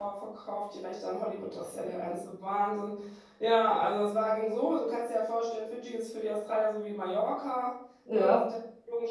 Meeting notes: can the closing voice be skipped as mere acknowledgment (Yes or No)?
Yes